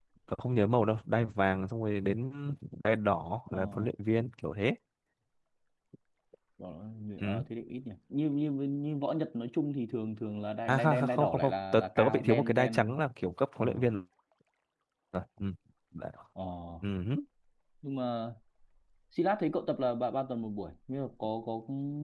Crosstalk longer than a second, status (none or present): present